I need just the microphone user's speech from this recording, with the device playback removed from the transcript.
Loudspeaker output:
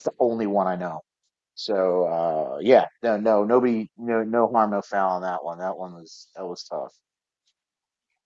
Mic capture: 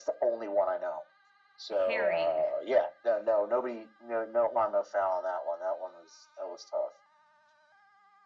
herring.

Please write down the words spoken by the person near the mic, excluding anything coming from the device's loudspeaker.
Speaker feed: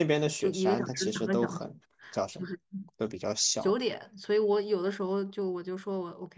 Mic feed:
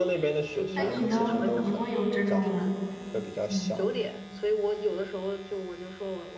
那你呢？你会有这种嗯

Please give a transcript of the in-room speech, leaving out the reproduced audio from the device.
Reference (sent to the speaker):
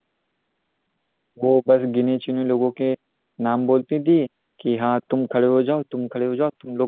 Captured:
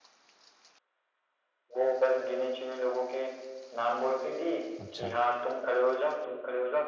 अच्छा

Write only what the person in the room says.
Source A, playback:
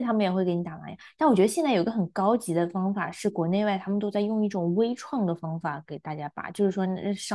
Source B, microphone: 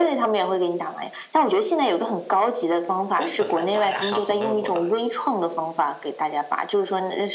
不是本来拔牙伤口能有多大呀？

